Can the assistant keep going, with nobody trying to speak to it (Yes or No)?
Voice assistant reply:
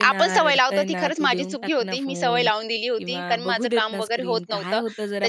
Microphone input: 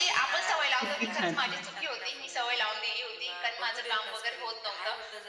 No